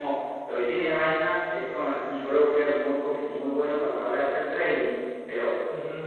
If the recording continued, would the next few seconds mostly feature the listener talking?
No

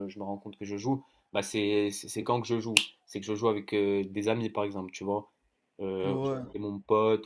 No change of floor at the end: Yes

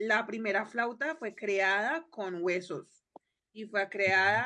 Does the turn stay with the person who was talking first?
Yes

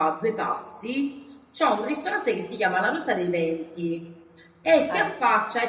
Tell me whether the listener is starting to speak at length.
No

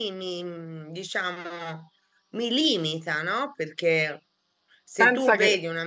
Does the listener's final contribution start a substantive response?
No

